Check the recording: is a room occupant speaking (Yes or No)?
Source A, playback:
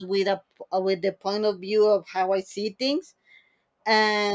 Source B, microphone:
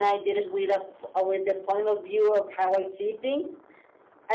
No